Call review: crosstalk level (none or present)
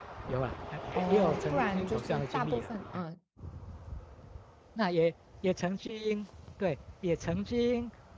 present